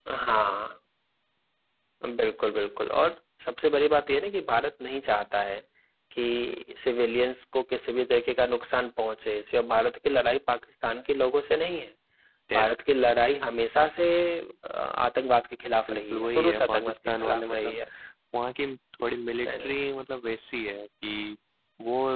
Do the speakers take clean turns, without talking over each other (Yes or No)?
No